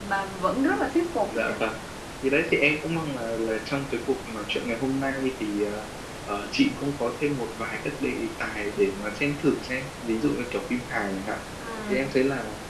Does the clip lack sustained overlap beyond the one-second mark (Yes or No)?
Yes